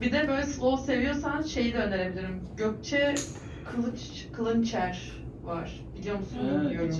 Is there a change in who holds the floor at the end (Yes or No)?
Yes